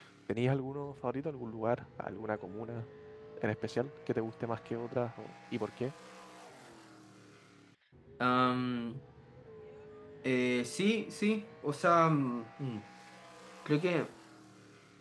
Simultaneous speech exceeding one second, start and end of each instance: none

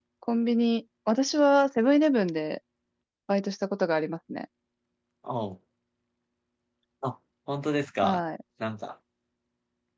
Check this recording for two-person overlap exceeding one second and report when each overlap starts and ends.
none

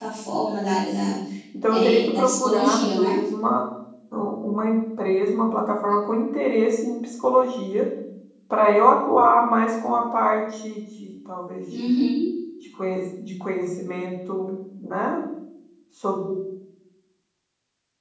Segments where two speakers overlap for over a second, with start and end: 1.7-3.2

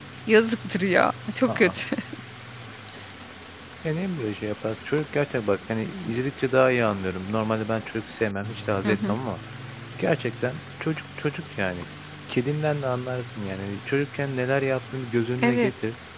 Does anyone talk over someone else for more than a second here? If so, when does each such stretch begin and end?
none

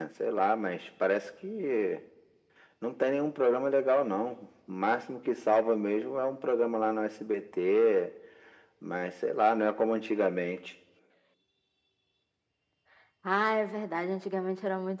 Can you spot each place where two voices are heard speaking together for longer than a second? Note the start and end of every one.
none

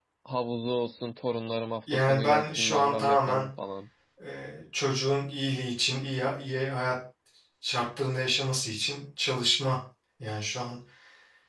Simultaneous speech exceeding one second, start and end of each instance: 1.9-3.5

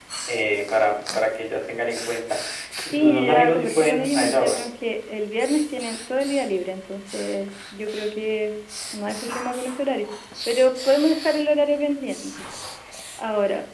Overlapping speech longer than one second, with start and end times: 2.9-4.6

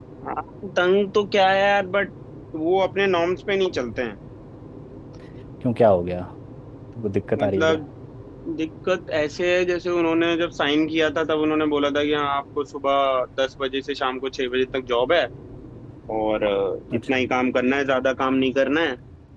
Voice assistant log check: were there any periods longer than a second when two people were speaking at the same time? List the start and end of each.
none

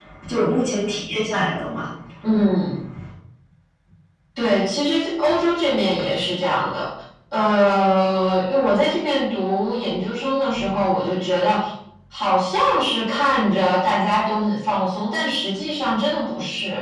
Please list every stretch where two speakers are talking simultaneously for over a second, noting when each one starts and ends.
none

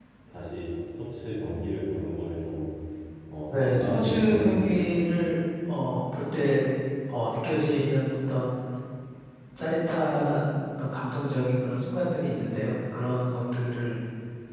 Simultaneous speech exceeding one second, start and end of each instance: 3.5-5.0

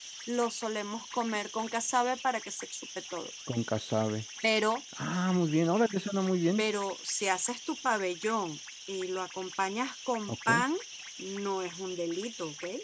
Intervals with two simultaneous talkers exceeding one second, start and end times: none

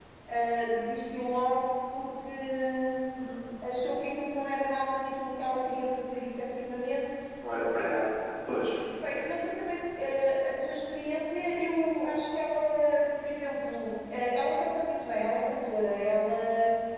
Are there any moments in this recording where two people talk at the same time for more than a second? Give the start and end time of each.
none

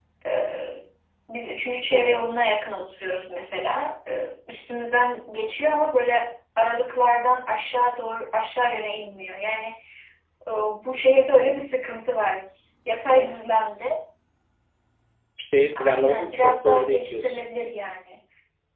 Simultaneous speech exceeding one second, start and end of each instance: 15.8-17.4

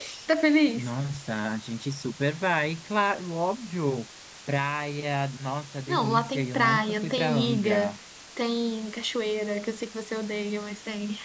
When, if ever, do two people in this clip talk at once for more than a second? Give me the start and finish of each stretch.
5.9-7.9

